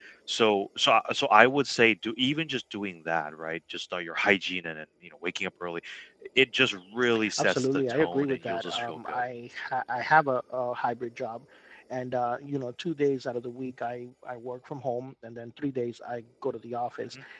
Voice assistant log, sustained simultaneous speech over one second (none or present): present